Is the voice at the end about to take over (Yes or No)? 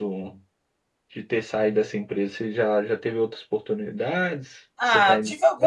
Yes